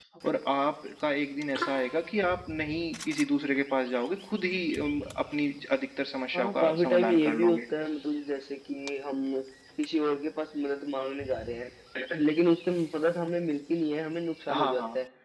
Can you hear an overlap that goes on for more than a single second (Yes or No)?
Yes